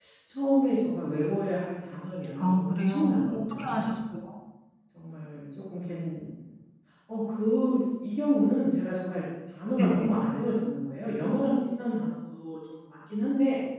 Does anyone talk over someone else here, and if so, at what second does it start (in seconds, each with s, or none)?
2.4 s